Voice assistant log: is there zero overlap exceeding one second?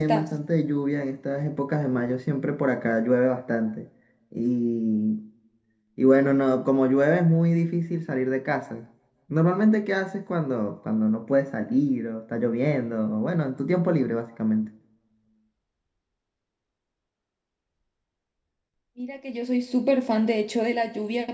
Yes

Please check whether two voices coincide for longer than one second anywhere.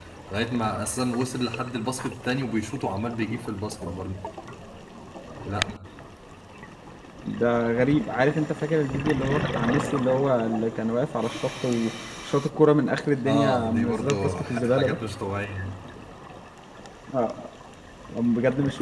Yes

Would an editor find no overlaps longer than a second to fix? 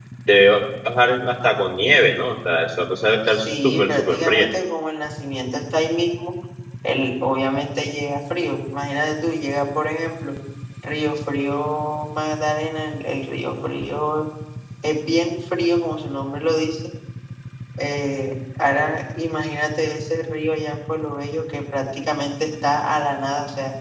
No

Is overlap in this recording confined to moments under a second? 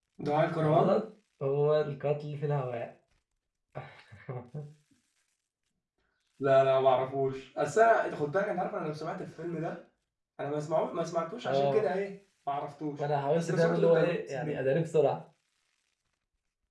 No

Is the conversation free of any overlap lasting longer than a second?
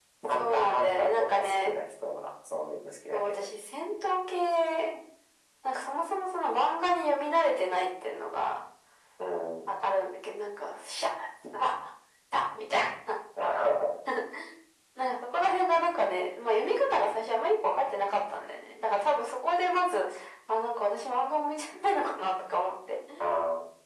No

